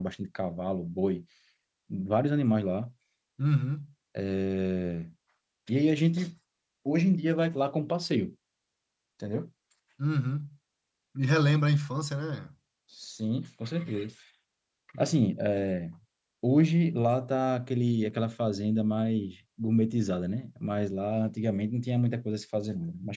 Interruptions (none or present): none